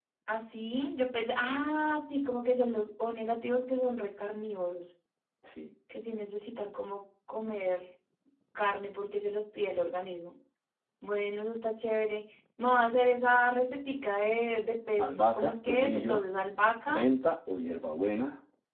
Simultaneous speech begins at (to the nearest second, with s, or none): 15 s